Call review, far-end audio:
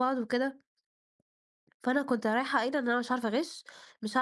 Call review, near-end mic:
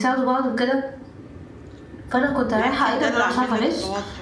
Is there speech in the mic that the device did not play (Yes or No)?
Yes